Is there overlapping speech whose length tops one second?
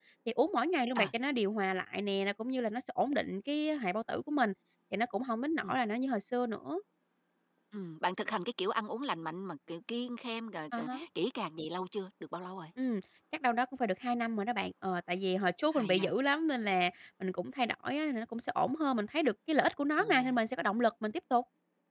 No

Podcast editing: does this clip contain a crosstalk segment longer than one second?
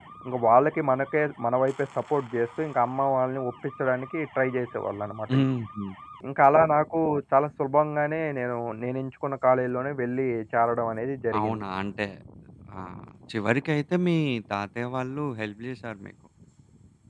No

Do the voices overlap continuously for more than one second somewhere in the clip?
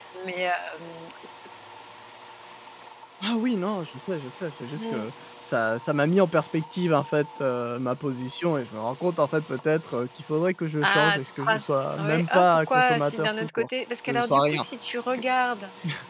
Yes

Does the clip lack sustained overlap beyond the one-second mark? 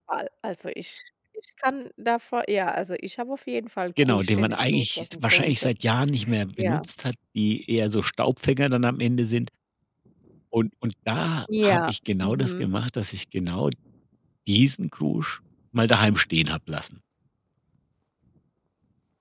No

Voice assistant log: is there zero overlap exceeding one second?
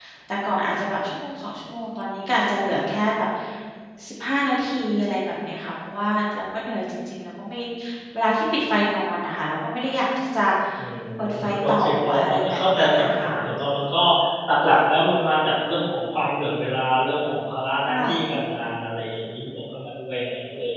No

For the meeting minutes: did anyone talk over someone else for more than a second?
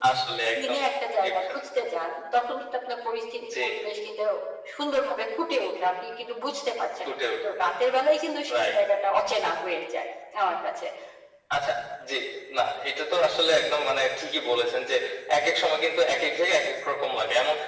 No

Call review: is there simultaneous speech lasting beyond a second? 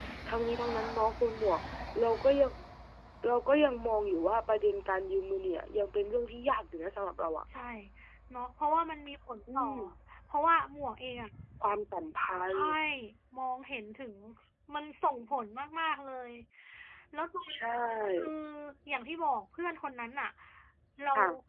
No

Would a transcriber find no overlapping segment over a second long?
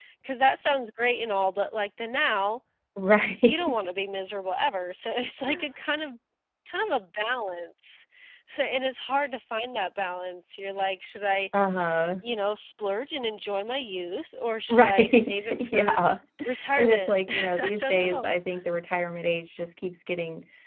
No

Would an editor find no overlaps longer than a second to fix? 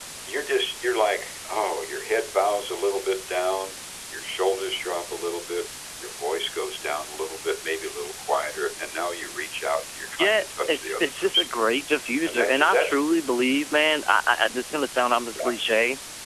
No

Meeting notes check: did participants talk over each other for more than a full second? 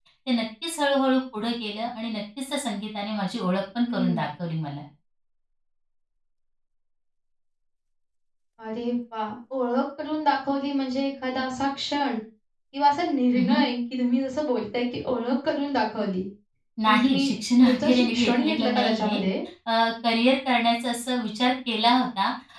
Yes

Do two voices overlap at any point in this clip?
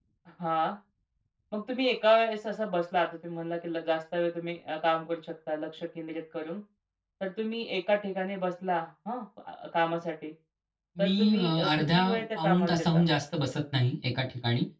Yes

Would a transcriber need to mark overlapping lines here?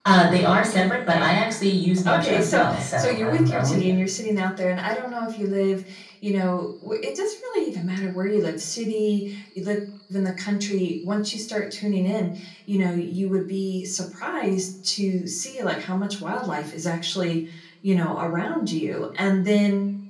Yes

